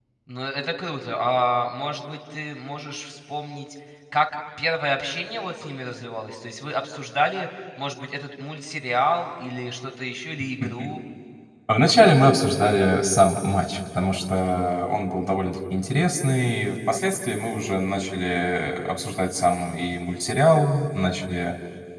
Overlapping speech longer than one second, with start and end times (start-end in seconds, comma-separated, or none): none